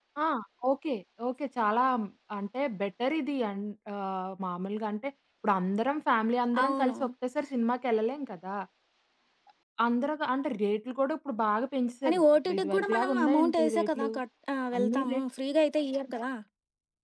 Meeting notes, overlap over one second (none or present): present